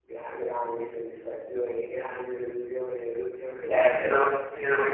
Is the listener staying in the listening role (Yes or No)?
No